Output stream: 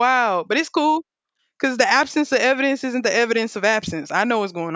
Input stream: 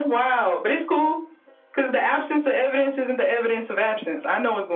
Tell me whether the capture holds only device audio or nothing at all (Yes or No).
Yes